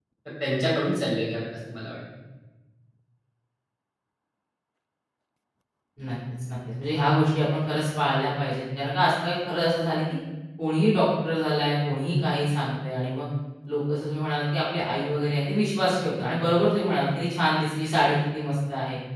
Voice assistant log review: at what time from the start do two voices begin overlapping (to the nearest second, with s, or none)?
none